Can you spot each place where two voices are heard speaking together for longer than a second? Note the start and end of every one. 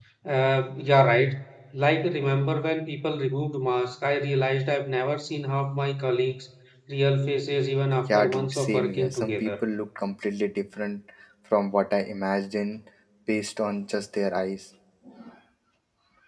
8.1-9.6

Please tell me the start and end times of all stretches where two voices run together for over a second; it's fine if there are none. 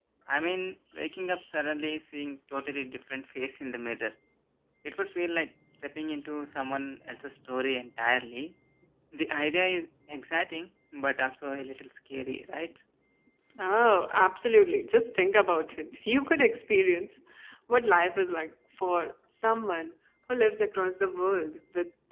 none

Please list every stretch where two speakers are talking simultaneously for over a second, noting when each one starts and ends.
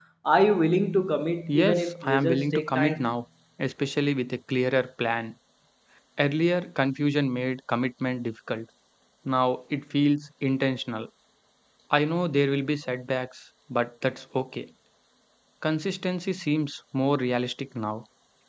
1.5-3.1

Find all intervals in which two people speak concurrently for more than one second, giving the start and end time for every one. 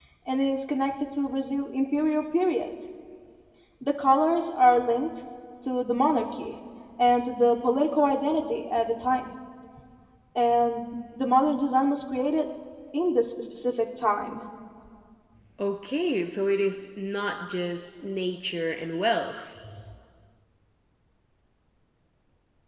none

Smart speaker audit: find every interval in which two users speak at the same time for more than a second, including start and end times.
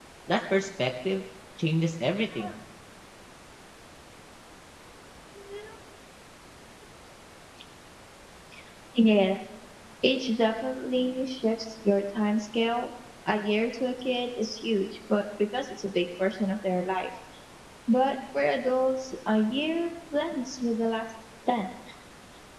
none

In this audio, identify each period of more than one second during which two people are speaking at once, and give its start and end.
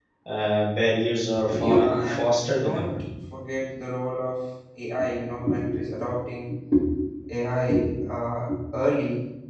1.5-2.9

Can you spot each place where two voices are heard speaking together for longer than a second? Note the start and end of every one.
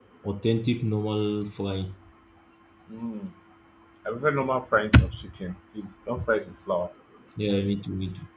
none

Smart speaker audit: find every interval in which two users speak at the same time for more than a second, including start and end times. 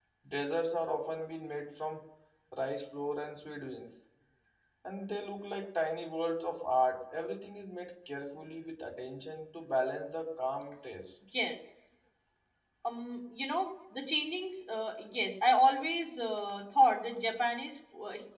none

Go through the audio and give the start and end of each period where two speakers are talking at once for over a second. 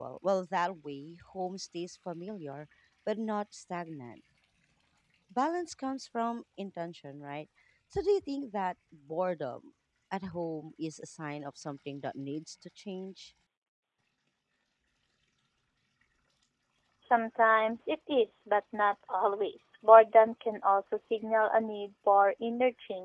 none

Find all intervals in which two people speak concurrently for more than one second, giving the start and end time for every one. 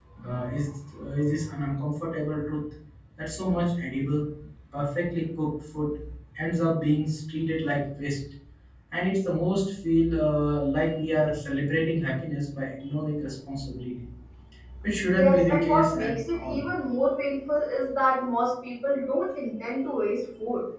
15.1-16.6

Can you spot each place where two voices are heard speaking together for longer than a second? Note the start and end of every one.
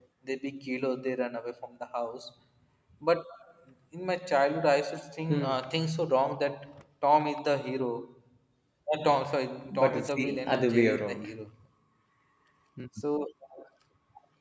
9.7-11.3

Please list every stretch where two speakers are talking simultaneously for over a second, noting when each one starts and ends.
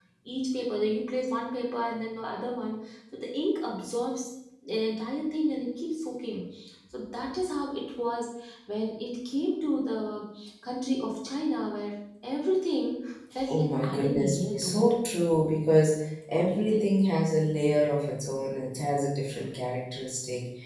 13.5-14.8

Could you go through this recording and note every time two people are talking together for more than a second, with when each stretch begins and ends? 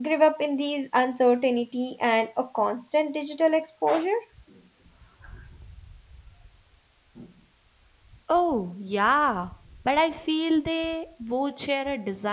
none

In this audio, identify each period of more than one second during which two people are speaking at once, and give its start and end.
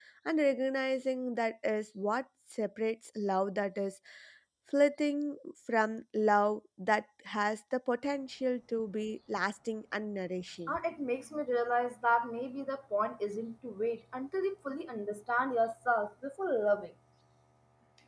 none

